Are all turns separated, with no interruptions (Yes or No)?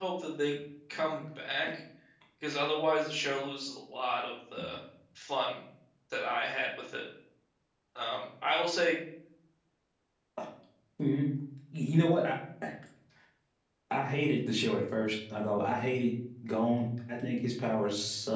Yes